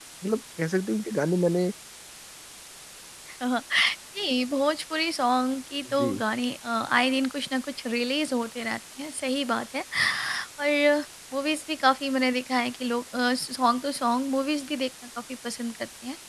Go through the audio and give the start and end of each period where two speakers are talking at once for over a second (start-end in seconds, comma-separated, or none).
none